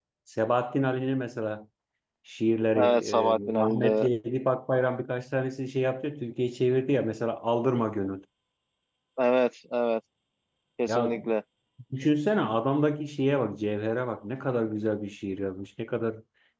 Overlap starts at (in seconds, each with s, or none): 2.8 s